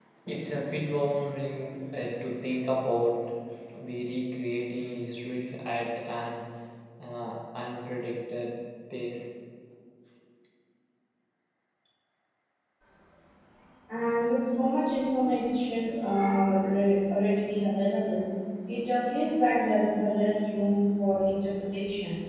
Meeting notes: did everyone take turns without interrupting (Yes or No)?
Yes